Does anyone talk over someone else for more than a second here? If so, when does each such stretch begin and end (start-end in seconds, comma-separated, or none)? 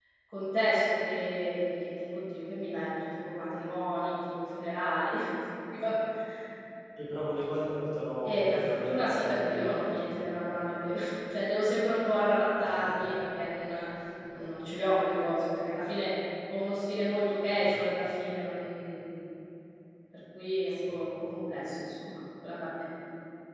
8.2-10.1